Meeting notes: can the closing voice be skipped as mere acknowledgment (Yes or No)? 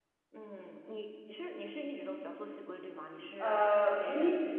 No